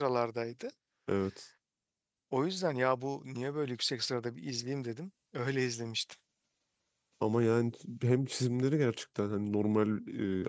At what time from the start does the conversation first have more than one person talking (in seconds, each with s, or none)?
none